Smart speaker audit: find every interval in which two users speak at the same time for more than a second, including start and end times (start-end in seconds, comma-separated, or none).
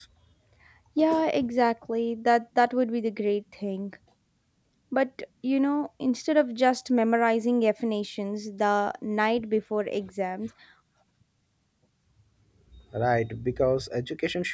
none